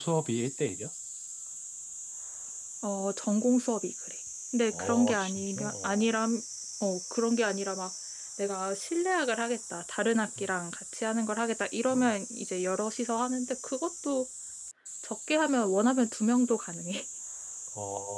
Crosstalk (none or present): present